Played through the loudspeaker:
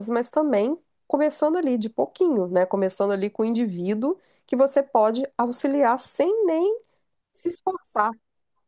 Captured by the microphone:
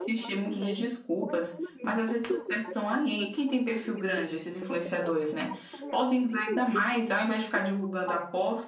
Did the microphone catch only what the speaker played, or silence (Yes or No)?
No